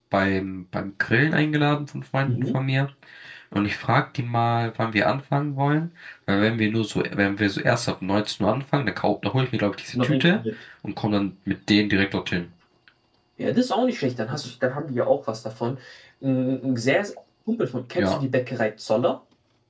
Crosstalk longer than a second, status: none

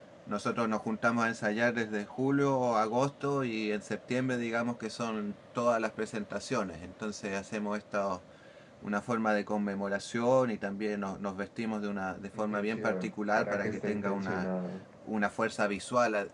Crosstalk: present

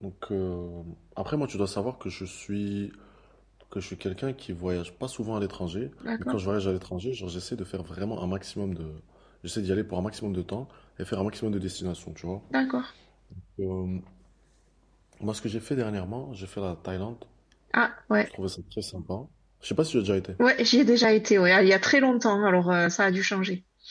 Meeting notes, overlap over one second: none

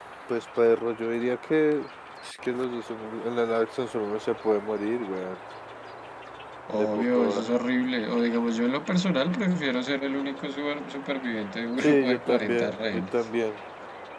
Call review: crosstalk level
present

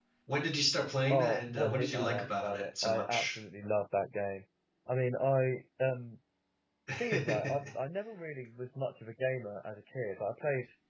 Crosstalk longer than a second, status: present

